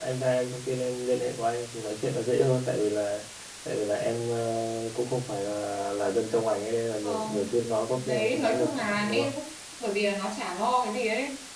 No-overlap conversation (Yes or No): No